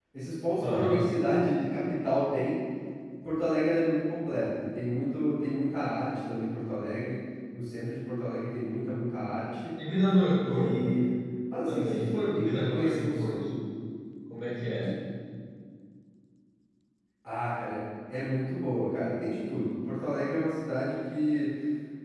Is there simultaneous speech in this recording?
Yes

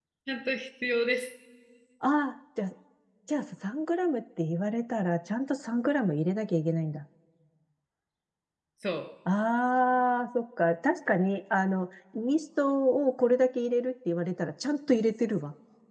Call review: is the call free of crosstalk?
Yes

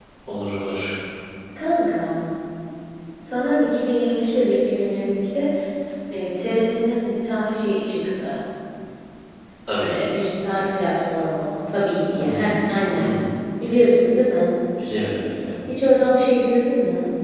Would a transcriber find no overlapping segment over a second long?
Yes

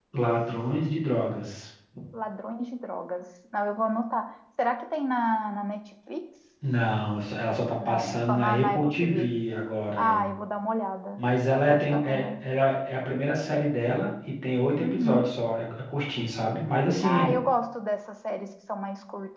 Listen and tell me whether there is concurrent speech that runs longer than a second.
Yes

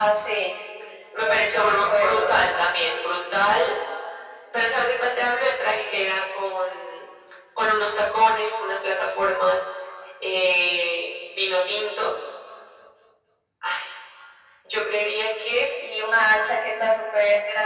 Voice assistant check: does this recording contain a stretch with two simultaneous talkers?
Yes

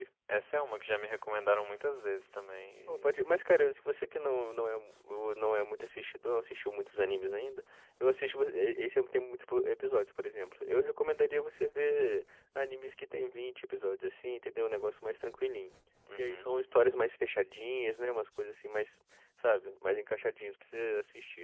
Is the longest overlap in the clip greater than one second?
No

